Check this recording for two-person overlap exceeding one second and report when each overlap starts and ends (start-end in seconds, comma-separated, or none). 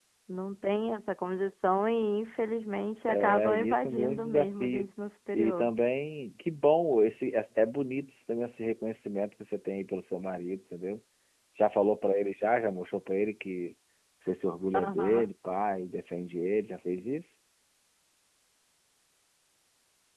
3.1-4.9